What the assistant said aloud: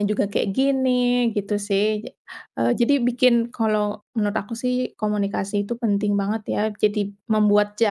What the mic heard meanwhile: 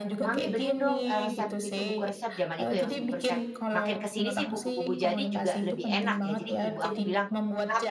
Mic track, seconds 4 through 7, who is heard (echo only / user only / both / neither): both